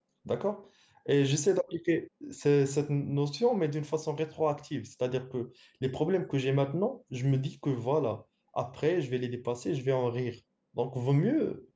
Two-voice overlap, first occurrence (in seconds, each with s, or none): none